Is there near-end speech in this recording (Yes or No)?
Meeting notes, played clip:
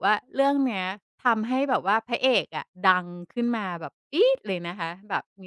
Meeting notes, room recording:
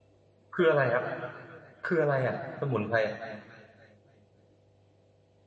Yes